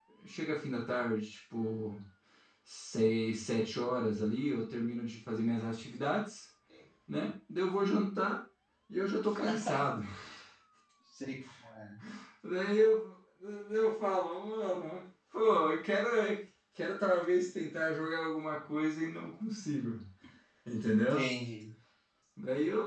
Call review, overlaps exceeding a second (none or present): none